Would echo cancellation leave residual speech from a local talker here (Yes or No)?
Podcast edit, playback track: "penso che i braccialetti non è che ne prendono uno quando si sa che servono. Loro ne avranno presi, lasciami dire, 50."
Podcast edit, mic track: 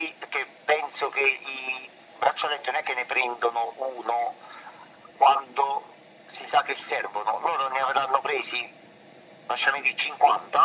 No